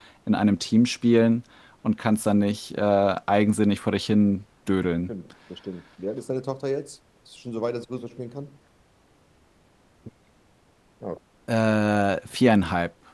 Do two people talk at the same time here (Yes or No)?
No